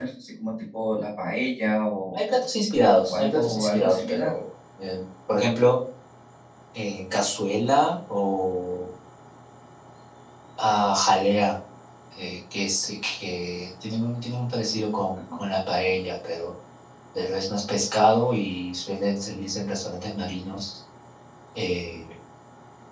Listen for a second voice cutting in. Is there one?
Yes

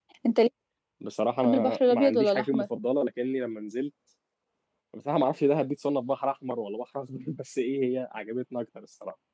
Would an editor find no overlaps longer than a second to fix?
No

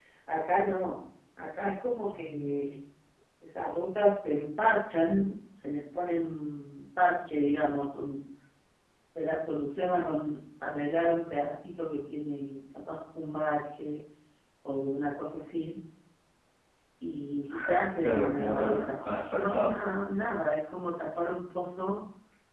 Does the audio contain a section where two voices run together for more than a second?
Yes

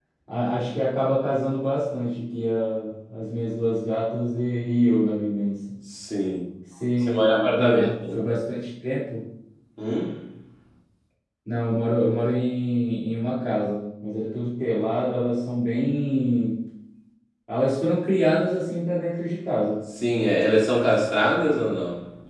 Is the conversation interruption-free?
No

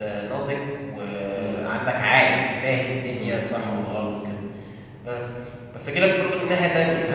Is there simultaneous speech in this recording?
Yes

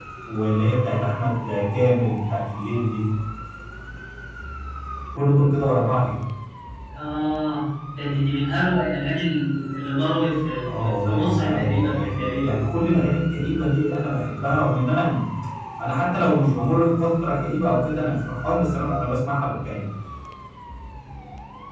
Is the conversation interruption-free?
No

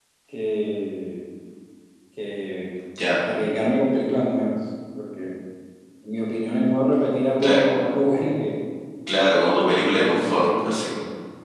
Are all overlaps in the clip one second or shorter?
No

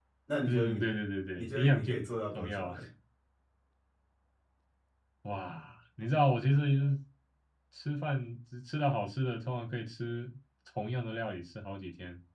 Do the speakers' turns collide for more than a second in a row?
Yes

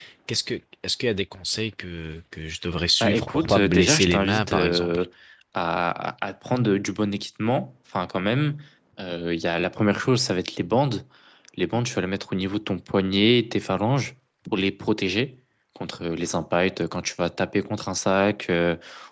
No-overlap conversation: No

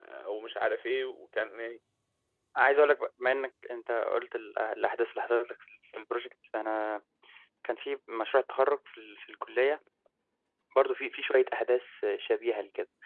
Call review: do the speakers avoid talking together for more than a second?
Yes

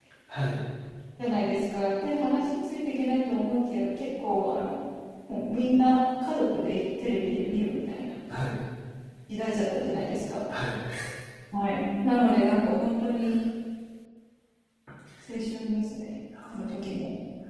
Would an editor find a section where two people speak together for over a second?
No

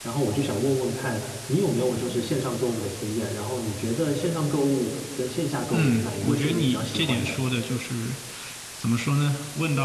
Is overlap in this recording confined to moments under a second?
No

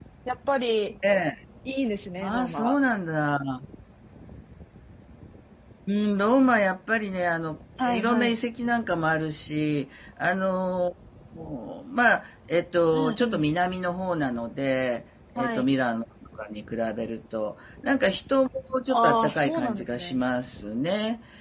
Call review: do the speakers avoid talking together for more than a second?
No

